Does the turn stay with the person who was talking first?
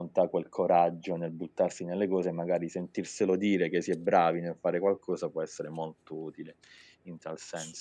No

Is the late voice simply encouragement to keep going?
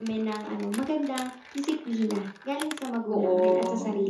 No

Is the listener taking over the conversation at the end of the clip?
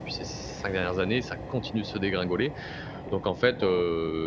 No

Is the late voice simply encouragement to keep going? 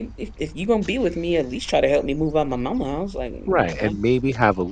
No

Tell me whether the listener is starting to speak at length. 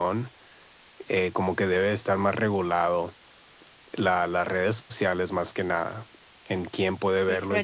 Yes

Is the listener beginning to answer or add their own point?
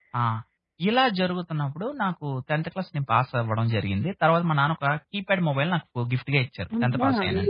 Yes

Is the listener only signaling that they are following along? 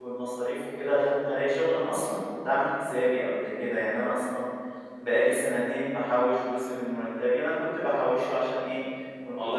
Yes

